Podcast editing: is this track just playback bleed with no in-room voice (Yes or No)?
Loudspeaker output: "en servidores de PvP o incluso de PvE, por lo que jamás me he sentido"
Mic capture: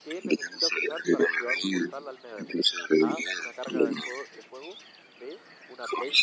No